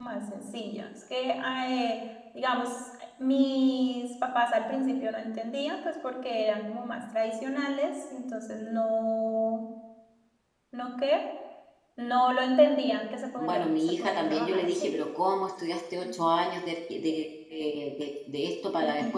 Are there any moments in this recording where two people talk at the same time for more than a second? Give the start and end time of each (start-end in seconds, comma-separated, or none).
13.4-14.9